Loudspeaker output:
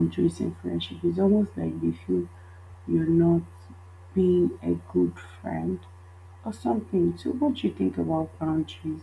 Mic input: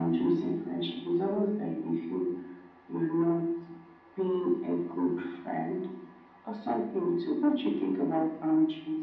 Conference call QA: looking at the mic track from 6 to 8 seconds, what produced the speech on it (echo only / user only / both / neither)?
echo only